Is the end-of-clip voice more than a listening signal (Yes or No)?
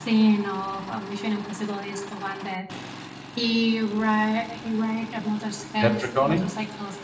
No